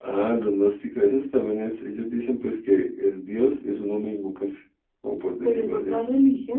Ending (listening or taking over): taking over